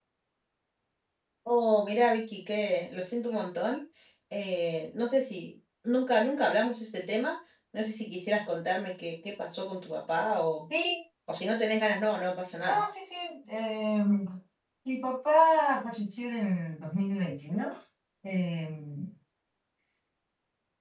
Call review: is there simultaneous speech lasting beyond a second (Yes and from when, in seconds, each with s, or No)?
No